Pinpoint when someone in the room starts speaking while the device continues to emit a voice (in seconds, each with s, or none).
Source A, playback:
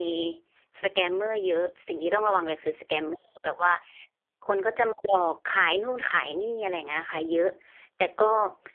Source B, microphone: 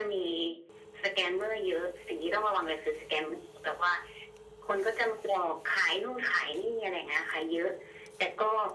none